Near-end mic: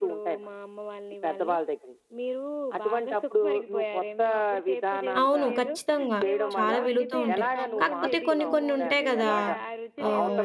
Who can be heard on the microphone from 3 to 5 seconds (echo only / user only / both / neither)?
echo only